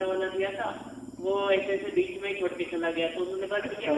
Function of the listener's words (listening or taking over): taking over